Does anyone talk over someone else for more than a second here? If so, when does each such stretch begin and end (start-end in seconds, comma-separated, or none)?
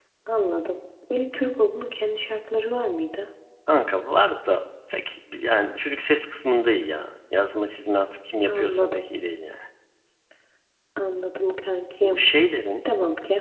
none